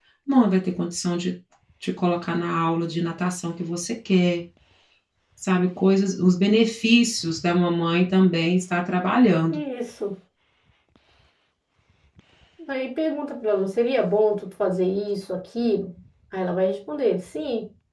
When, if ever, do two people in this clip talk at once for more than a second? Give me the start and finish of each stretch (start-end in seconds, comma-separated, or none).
none